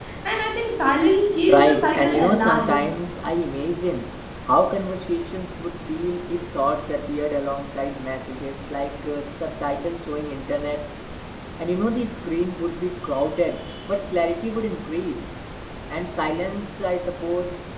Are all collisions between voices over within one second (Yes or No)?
No